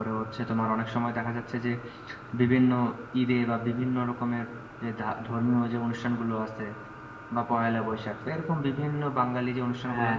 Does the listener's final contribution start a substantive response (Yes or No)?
No